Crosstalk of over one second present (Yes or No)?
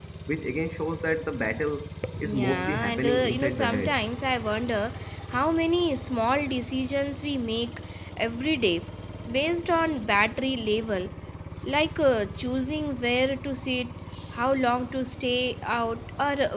Yes